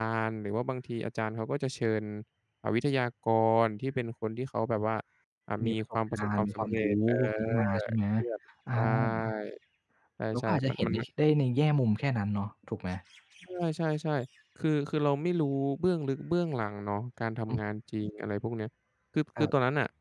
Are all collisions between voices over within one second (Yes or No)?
No